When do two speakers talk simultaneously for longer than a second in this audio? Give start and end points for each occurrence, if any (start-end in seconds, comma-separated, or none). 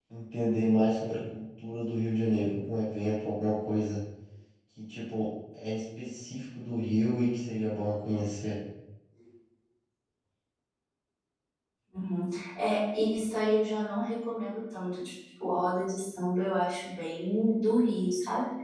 none